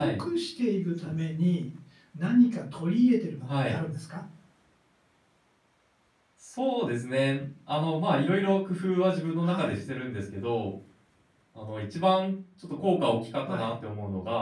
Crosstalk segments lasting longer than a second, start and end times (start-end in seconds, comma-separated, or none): none